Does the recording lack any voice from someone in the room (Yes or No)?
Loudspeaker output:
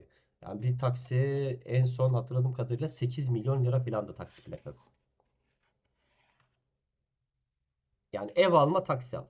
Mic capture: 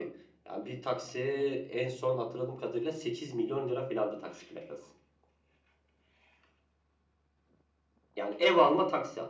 Yes